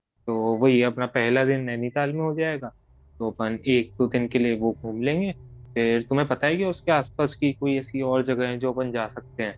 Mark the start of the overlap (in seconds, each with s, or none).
none